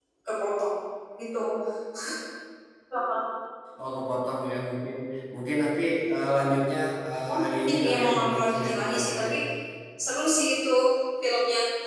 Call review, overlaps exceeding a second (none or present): present